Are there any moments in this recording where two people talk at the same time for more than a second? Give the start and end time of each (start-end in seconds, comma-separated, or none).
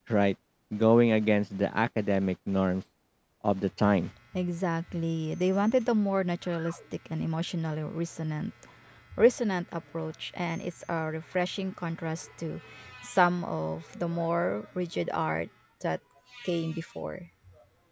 none